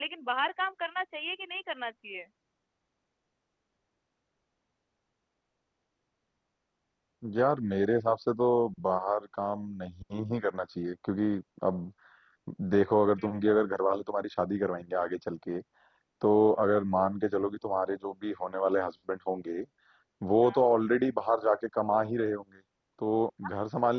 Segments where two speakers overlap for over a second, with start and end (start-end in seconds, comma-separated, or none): none